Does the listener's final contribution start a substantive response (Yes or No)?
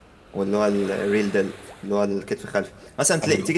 No